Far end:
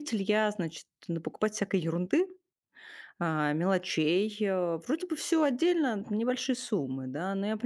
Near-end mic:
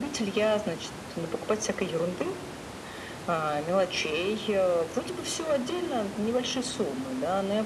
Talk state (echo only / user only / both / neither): echo only